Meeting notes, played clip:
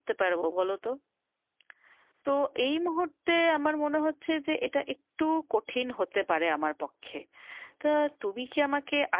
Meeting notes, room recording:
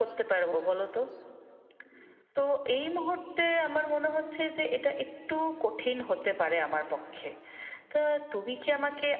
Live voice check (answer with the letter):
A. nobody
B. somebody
A